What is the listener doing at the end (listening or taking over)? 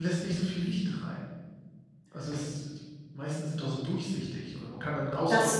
taking over